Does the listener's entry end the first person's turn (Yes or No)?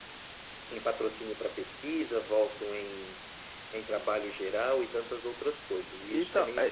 Yes